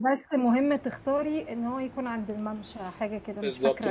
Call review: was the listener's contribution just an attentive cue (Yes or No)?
No